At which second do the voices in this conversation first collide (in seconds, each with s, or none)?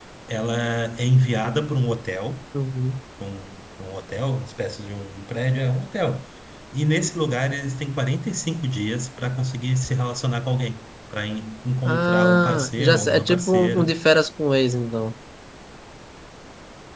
11.8 s